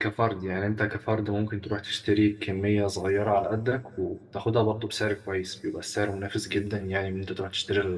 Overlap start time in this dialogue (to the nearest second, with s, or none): none